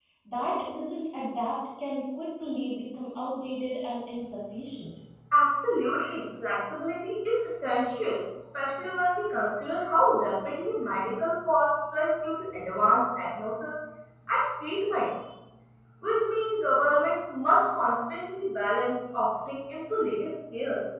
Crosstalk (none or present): none